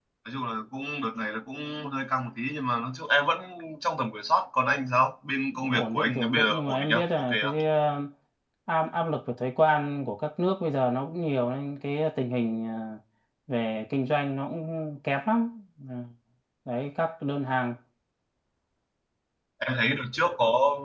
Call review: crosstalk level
present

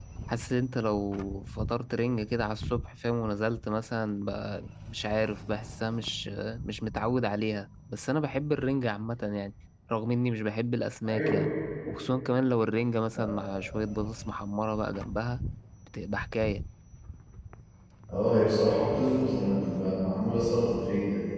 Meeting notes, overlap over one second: none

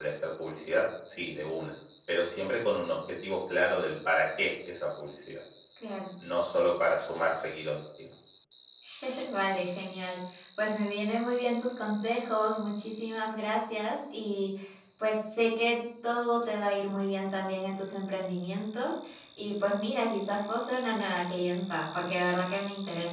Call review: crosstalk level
none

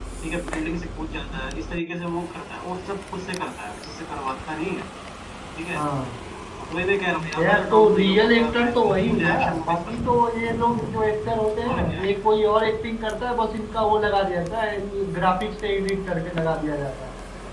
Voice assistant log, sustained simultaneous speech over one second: present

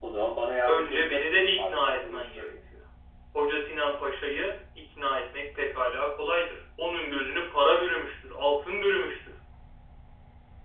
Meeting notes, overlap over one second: present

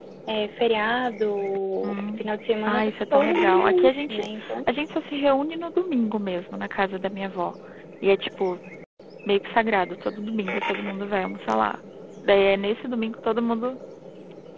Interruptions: present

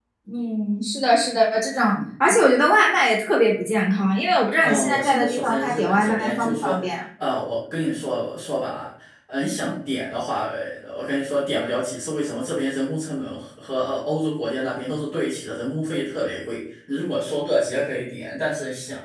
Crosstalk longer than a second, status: present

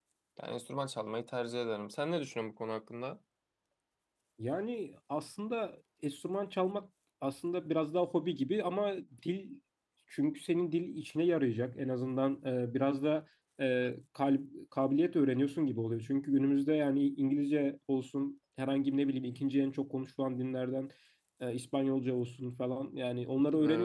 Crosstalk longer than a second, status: none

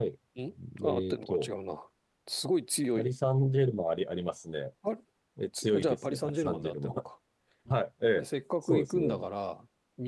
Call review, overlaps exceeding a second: present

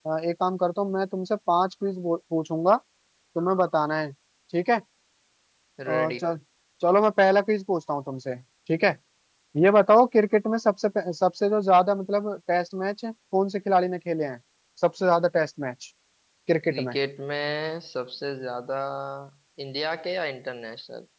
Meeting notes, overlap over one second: none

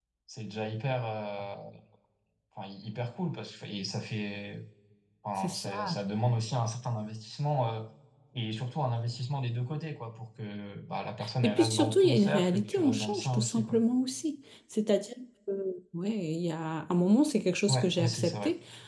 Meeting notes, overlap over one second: present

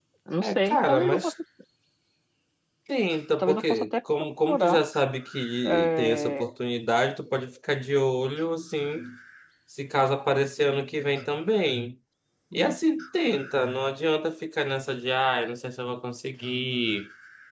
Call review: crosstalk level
present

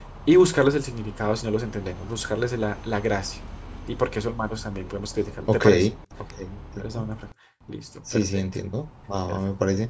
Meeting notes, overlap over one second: none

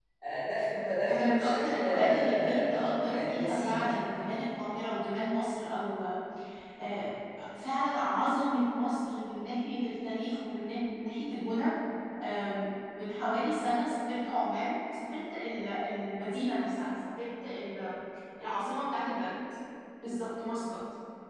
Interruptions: present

